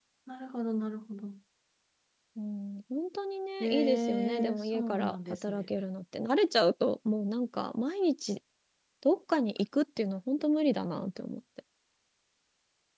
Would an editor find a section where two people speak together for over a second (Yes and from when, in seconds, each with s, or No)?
Yes, from 3.6 s